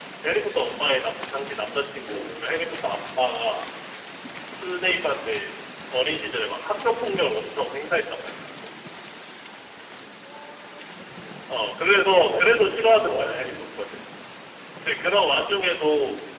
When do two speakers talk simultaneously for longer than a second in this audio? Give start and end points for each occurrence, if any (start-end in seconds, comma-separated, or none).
12.0-13.5